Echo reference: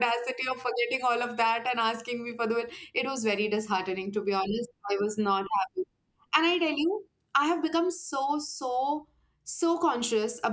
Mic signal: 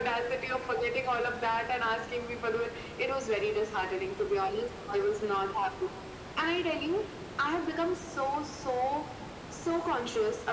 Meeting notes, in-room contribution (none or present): none